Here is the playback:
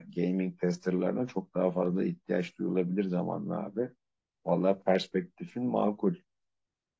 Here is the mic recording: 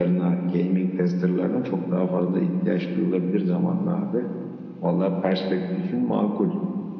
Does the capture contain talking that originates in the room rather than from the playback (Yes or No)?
No